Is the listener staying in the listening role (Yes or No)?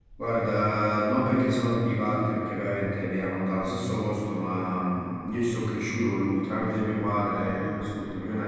Yes